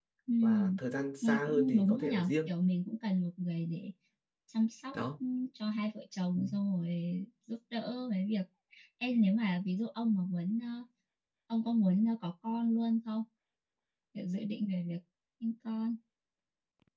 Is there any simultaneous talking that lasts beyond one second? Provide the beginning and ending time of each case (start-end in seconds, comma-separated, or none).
1.2-2.5